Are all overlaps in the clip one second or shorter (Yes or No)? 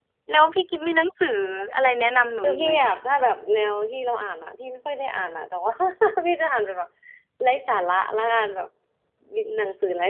Yes